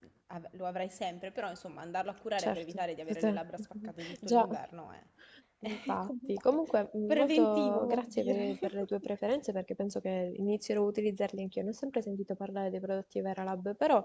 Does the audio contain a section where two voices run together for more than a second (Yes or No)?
Yes